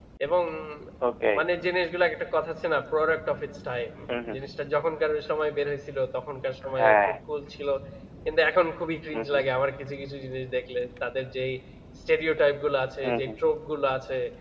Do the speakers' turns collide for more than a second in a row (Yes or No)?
No